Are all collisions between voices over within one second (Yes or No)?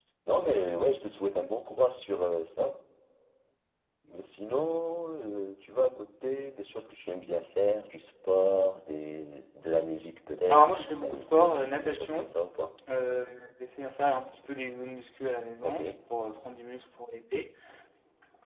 No